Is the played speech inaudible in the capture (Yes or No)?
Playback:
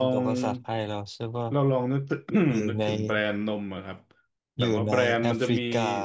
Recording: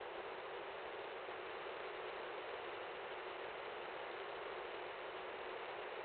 Yes